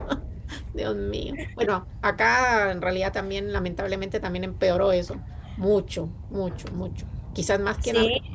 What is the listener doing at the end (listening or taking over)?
listening